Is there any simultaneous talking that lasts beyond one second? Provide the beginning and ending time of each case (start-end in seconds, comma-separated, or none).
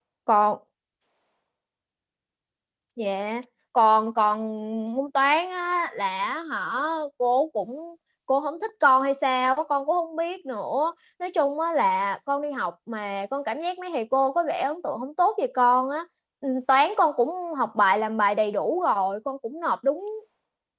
none